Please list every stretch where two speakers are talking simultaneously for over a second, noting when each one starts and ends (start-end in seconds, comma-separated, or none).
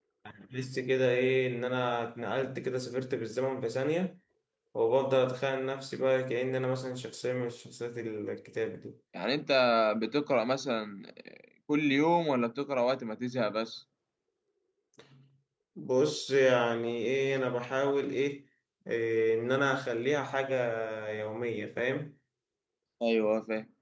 none